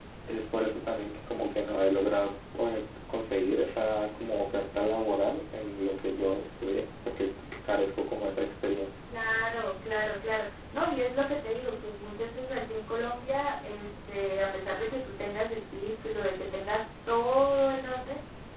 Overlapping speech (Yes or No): No